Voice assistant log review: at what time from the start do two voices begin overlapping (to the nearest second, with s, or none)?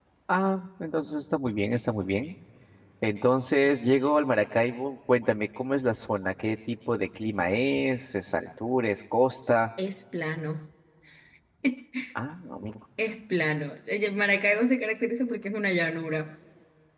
none